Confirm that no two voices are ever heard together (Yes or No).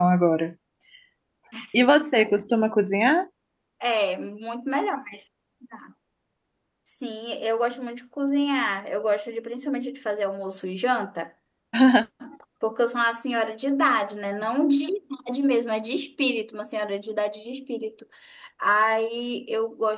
Yes